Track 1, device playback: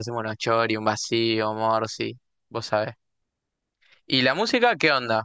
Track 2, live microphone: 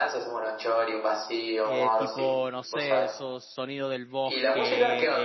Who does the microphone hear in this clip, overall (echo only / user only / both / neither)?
both